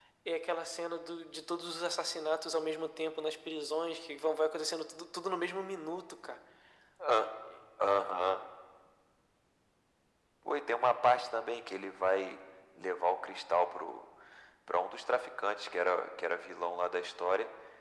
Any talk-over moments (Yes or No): No